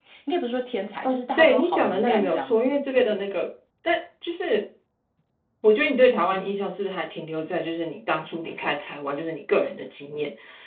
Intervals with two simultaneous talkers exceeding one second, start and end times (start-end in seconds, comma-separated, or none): 1.0-3.2